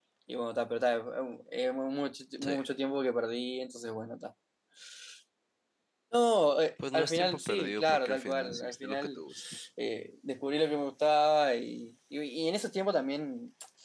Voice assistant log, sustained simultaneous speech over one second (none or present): present